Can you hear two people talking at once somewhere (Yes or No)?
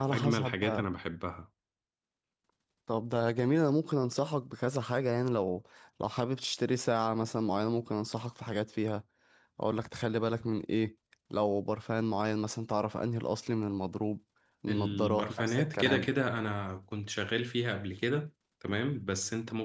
Yes